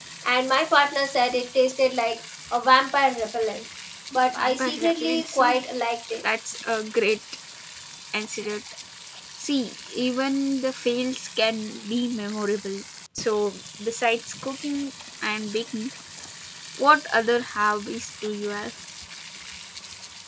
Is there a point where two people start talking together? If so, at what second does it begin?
4.3 s

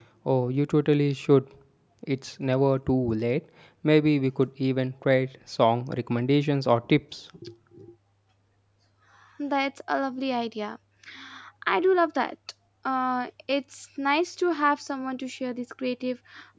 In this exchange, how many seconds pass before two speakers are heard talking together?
none

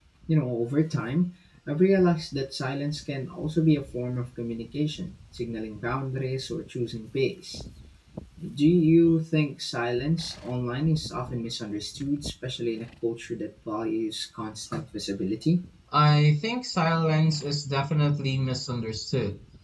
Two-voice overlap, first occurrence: none

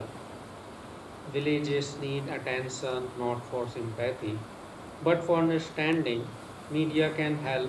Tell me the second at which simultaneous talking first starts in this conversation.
none

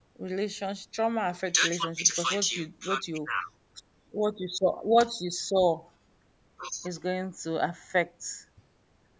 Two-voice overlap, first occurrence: 1.5 s

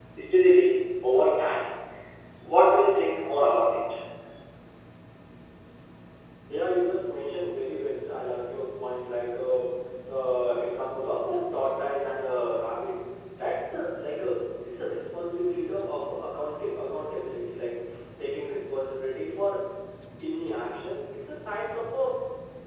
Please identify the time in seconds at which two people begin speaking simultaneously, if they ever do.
none

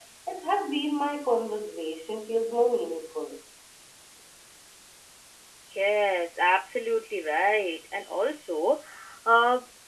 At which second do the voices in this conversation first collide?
none

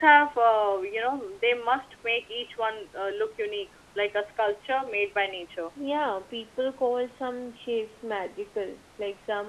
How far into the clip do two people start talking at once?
none

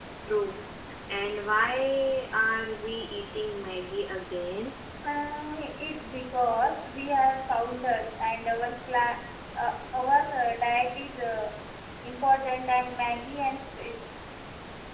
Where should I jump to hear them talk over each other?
none

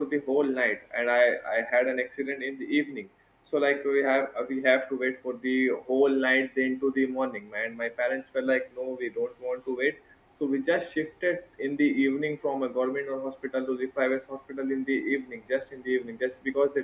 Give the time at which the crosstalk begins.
none

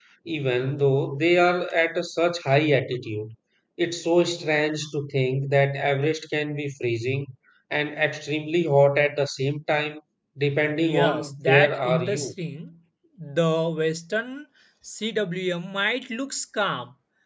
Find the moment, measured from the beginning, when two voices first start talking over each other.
10.8 s

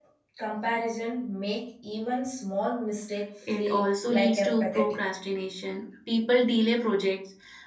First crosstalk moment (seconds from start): 3.4 s

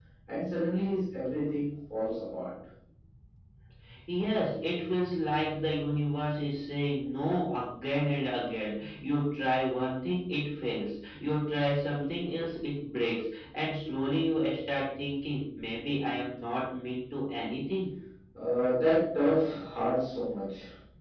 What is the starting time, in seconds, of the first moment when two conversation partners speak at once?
none

